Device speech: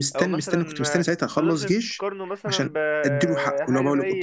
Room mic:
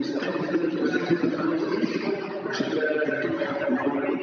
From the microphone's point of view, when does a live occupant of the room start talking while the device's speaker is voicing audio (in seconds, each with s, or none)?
none